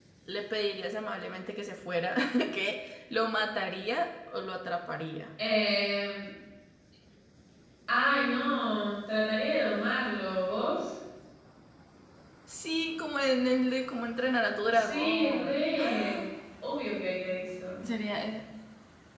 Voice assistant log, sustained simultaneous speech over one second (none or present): present